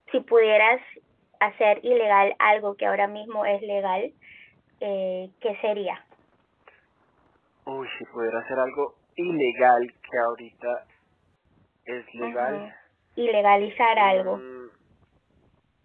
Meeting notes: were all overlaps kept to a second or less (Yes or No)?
Yes